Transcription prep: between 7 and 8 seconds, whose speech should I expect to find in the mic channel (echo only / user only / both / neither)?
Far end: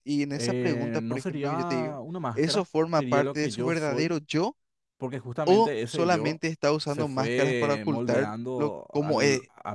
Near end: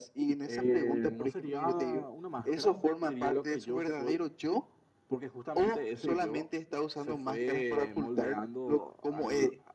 echo only